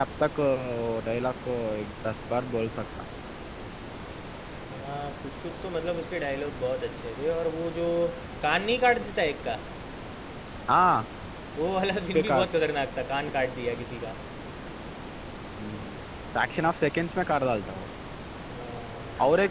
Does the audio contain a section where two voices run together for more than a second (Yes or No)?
No